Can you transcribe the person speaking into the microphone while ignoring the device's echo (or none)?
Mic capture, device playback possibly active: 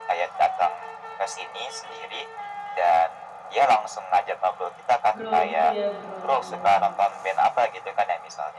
Bro gitu, ya? Bro- brothers.